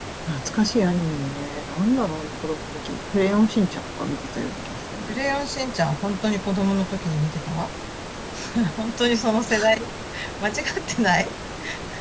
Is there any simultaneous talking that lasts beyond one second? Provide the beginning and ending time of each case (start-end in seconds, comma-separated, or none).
none